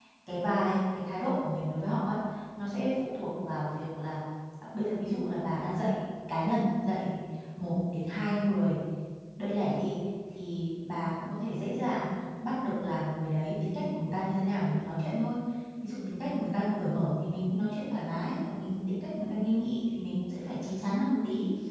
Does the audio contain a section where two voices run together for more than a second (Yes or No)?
No